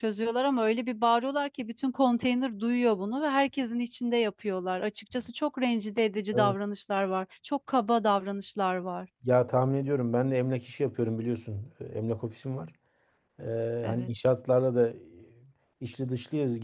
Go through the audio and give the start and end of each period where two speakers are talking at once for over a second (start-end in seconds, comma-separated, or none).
none